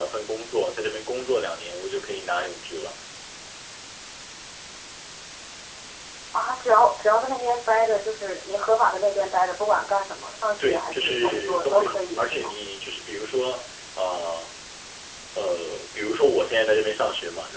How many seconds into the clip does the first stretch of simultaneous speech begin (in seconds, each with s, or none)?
10.6 s